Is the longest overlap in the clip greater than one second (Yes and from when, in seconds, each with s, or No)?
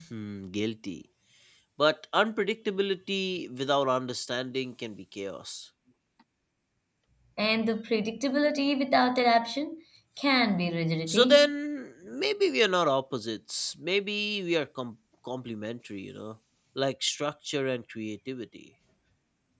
No